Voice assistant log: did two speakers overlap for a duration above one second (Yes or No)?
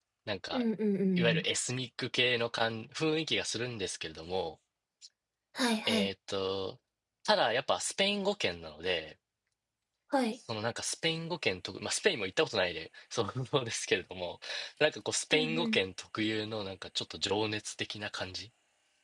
No